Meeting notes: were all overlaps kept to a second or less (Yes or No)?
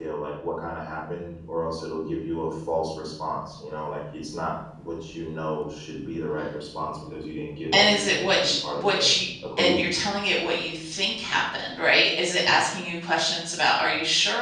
No